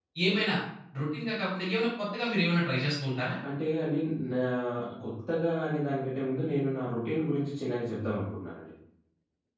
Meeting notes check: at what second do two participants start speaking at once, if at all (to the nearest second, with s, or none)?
none